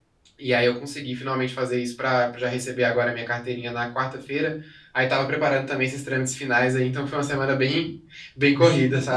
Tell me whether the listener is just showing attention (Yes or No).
No